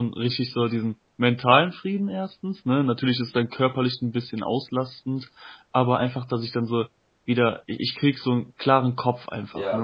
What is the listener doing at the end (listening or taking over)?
taking over